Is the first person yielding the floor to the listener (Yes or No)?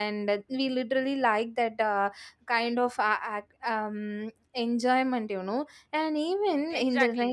Yes